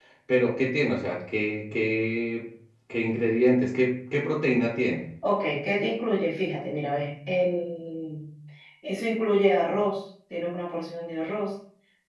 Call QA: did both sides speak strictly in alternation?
Yes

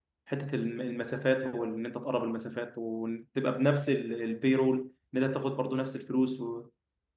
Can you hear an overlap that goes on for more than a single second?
No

